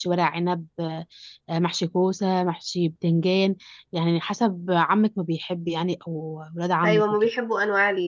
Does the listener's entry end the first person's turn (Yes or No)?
Yes